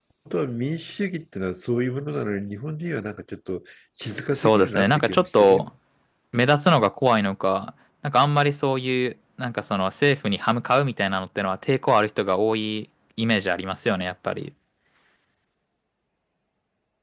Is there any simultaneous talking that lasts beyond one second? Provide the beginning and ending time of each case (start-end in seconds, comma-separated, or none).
4.3-5.7